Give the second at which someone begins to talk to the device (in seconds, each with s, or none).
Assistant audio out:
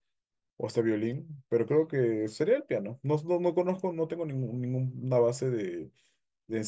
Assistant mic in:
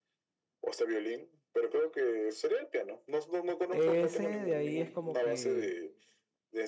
3.6 s